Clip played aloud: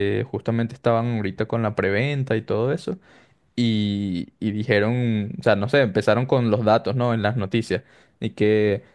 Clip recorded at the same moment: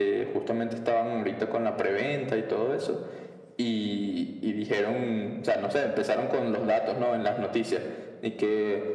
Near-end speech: none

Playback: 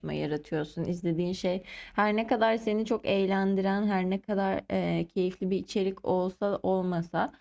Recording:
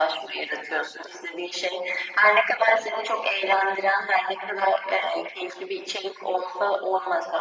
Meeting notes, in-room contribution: none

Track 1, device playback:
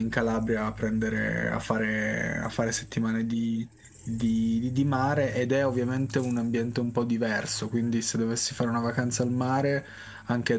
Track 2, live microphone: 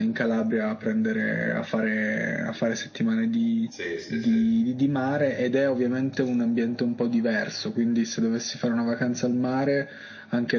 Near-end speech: present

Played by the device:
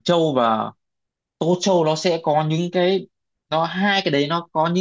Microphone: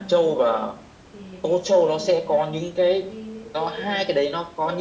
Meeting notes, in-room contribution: present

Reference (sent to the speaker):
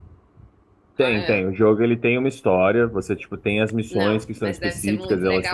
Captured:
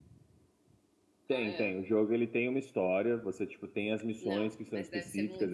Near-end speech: none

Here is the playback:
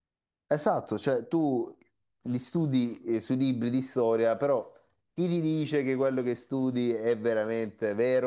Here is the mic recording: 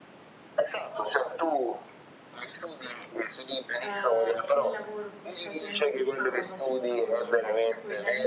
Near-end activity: present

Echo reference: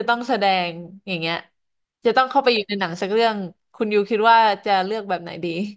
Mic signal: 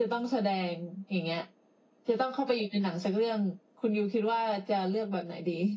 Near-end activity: none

